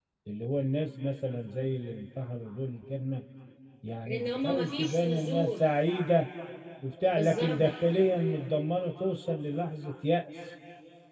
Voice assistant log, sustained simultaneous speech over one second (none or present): present